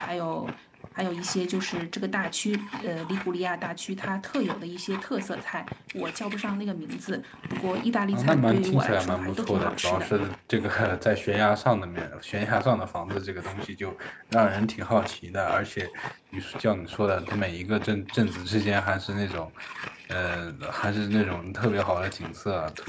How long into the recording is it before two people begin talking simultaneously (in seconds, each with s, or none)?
8.1 s